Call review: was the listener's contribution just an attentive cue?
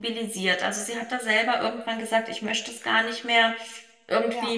Yes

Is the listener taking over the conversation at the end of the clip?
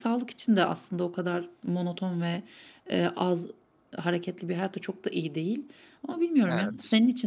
No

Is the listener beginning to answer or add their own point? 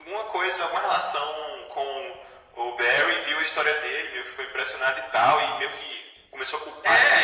Yes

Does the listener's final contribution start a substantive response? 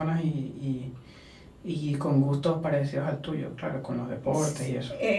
Yes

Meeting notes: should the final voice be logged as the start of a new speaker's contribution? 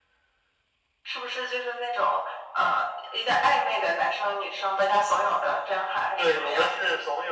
Yes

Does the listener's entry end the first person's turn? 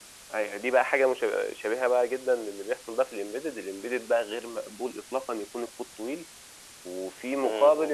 No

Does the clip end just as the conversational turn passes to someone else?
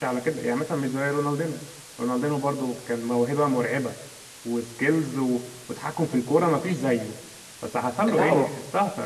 No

